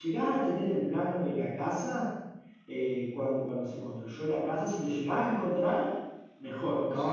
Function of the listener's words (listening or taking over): taking over